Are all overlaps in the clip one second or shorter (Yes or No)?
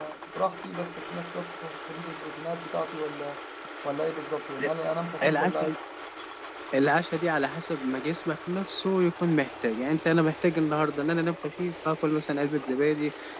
Yes